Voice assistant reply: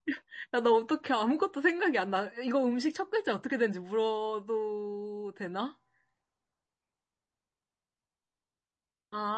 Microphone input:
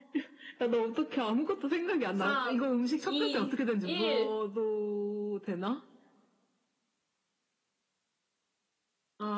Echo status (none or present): present